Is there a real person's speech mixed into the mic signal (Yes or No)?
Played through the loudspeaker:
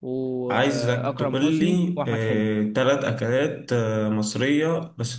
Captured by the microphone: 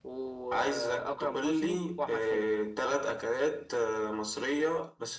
No